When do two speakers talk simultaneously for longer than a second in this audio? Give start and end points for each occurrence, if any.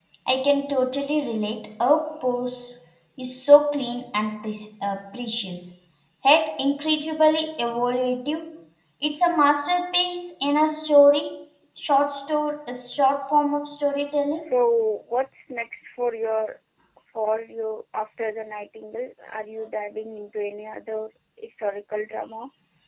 none

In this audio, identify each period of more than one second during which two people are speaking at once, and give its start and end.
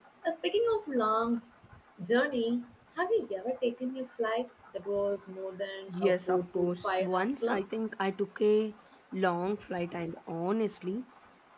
5.9-7.6

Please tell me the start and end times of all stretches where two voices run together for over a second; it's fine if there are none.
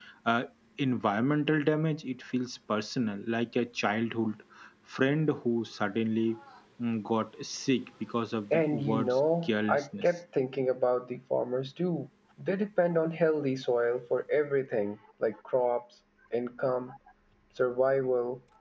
8.5-10.1

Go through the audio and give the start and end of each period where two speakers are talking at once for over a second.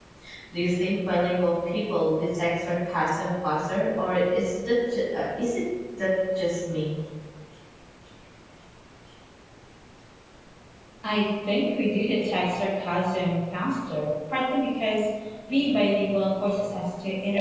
none

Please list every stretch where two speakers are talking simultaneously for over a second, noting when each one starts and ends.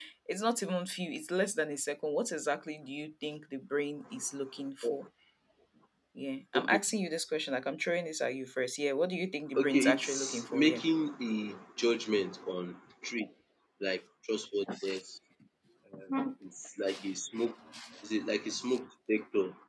9.6-10.8

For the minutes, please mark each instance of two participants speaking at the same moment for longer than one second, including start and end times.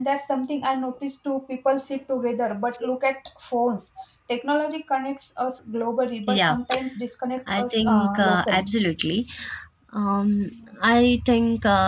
7.5-8.7

